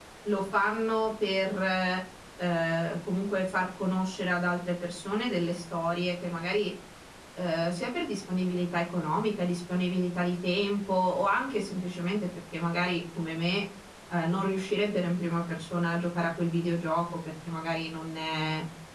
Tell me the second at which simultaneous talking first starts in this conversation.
none

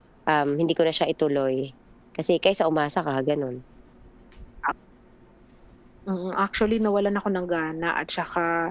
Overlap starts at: none

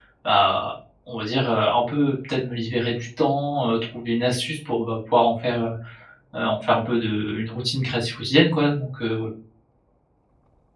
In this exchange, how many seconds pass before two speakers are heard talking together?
none

